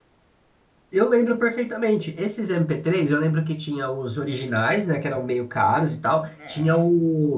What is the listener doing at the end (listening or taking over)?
listening